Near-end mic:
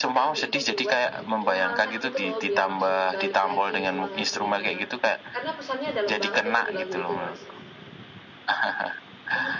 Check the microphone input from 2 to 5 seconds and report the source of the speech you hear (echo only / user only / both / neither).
both